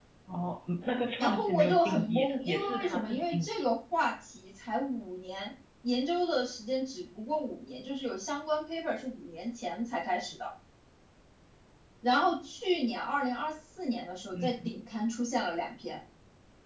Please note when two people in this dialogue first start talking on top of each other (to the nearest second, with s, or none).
1 s